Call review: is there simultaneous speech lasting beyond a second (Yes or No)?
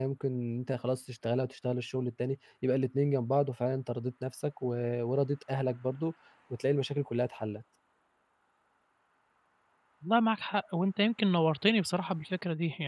No